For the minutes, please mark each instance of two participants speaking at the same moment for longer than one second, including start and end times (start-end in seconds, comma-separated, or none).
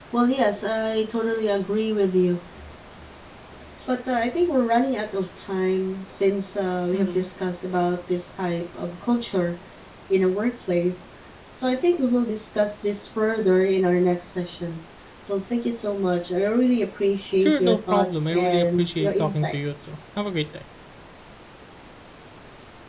17.4-19.5